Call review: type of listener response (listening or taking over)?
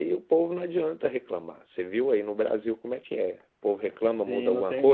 taking over